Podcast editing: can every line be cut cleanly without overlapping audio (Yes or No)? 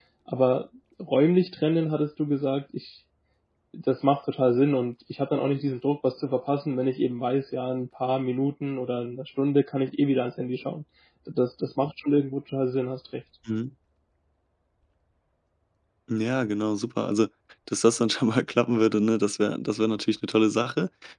Yes